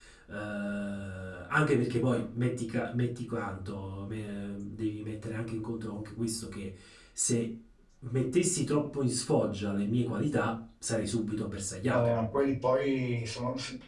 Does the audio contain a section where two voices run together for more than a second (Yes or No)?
No